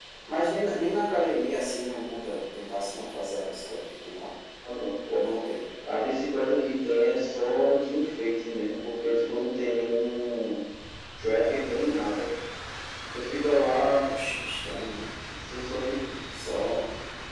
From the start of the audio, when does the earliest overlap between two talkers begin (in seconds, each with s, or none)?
none